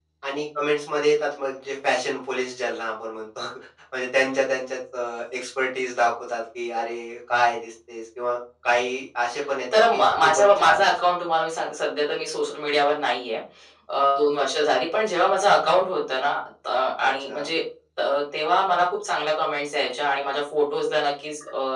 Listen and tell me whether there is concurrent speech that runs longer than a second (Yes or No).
Yes